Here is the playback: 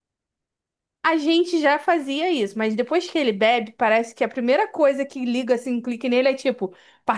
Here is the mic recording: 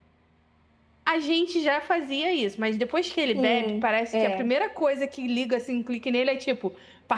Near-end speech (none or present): present